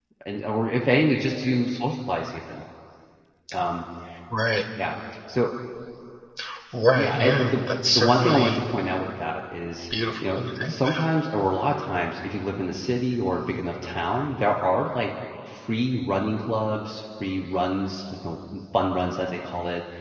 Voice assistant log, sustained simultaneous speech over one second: present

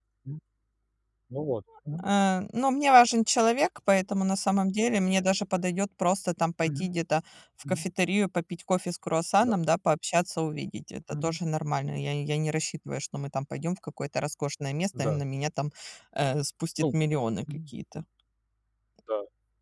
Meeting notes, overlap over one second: none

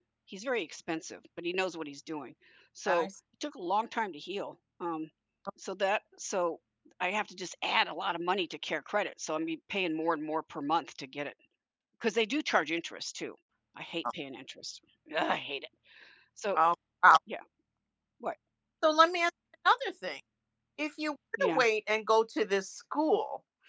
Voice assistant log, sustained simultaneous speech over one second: none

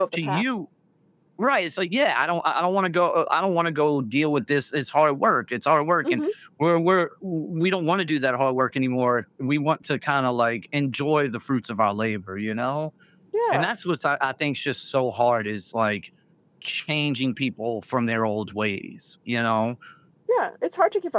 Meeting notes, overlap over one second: none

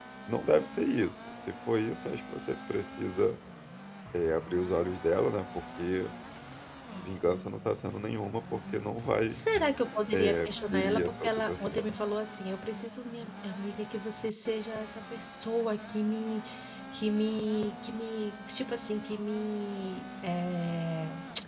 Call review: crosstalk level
present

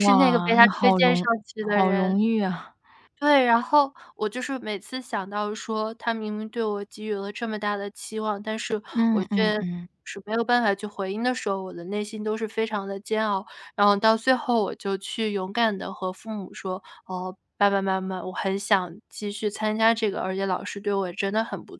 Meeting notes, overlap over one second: present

